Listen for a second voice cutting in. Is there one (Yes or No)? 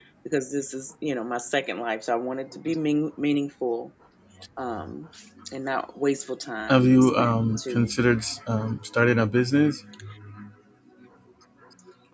Yes